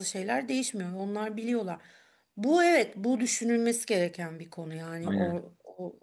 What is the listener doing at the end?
listening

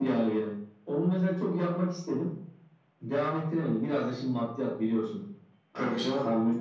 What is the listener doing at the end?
listening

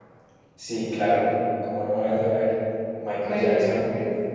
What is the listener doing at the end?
taking over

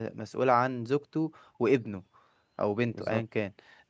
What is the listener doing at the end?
listening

